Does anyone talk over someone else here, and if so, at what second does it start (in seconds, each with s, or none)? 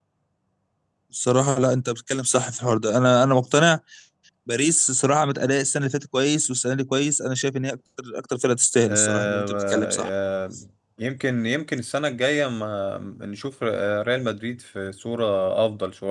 8.8 s